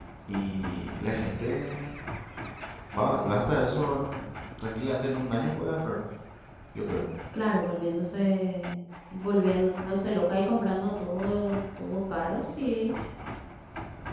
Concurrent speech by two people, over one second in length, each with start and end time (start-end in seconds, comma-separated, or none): none